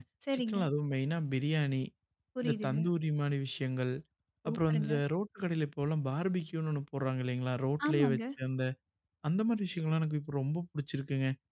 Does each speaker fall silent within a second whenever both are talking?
Yes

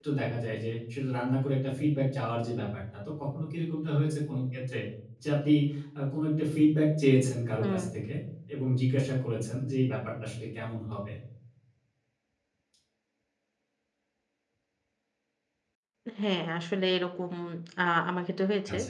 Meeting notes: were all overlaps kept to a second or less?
Yes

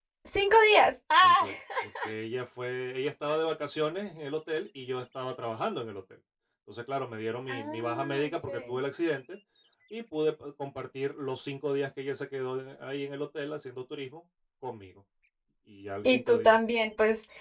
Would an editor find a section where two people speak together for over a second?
Yes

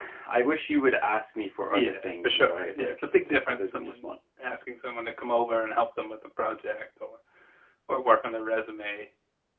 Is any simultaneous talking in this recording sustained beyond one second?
Yes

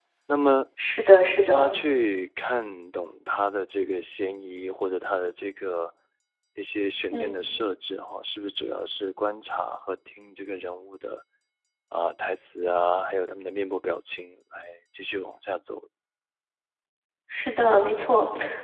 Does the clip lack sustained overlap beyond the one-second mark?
Yes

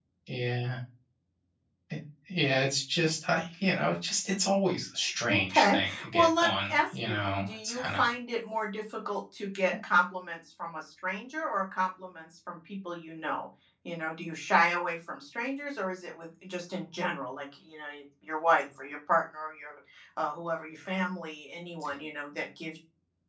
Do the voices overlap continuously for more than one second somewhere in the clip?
Yes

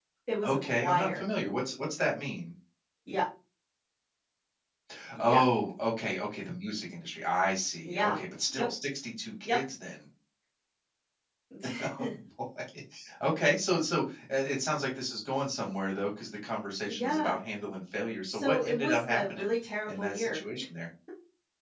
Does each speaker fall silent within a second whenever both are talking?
No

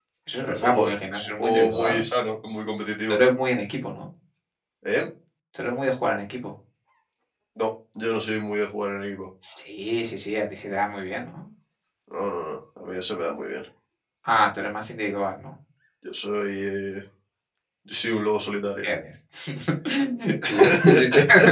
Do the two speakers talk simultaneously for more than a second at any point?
Yes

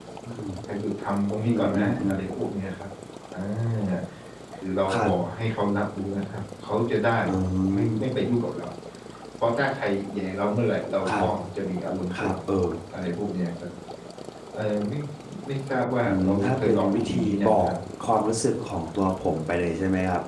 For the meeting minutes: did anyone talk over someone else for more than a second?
Yes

